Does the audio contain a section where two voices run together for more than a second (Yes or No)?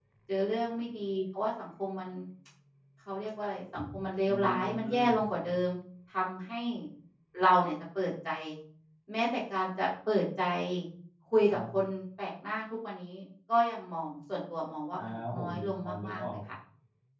Yes